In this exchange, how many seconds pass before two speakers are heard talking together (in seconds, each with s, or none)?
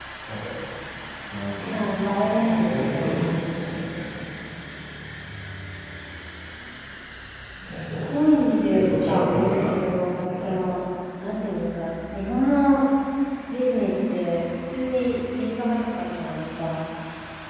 1.7 s